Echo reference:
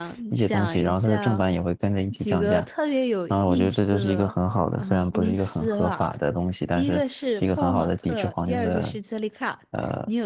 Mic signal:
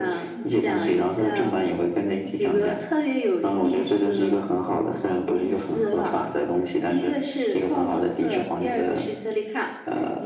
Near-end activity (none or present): none